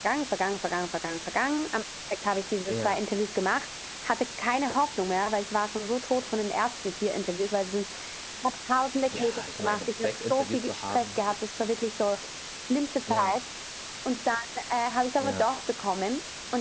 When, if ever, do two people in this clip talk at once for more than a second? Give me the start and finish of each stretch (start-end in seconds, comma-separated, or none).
9.0-11.2